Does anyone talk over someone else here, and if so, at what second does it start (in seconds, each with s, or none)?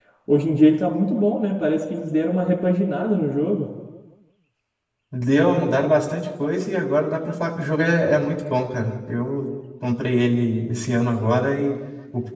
none